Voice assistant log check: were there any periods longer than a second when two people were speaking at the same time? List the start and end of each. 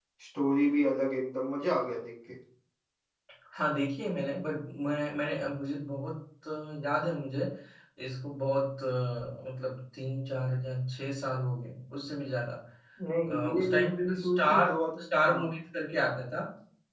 13.5-15.5

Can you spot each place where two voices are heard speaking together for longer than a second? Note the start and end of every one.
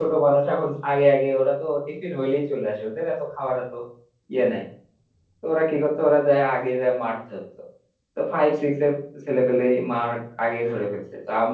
none

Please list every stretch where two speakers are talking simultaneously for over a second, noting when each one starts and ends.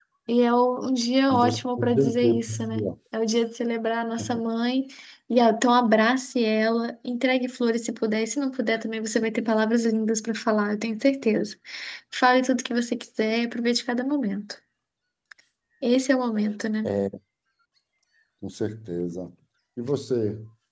1.3-2.9

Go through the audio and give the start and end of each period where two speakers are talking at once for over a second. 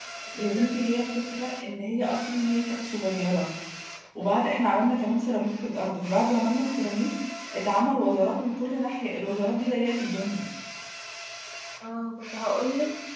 none

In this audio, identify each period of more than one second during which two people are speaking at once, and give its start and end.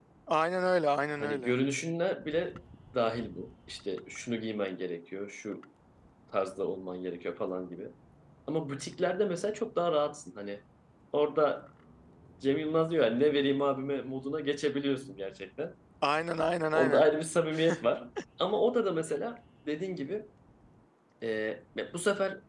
none

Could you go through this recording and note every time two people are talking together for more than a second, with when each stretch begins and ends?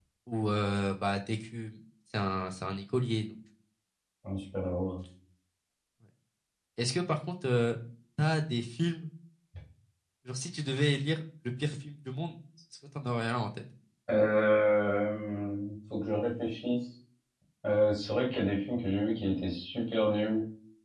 none

